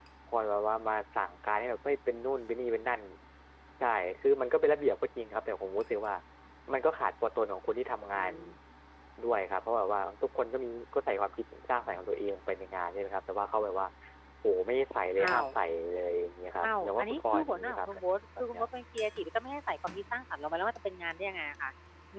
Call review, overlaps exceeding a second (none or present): present